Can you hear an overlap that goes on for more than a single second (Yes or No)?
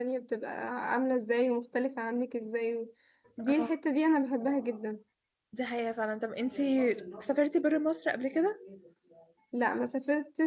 No